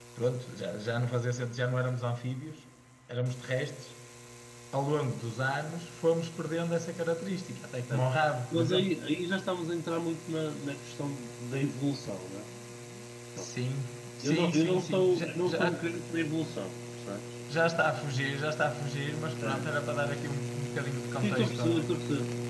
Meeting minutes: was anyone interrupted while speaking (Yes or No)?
Yes